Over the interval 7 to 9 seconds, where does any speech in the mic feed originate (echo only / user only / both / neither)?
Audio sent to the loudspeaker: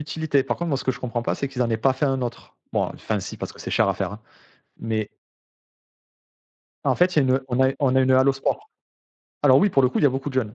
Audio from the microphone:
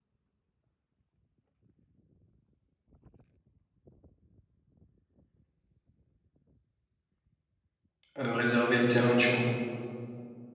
user only